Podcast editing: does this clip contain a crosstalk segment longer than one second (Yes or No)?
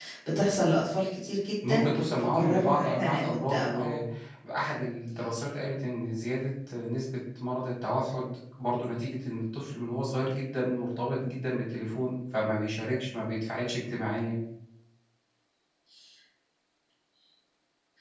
Yes